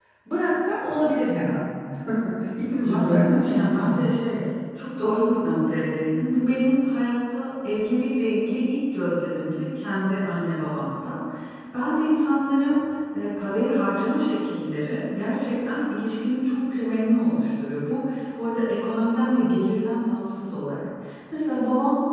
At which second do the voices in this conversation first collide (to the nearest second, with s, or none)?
3 s